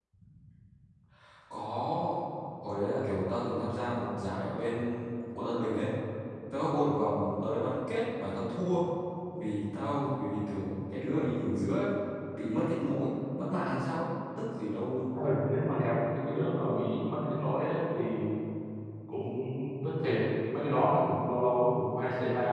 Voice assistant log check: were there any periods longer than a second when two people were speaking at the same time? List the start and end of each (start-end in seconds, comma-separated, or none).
none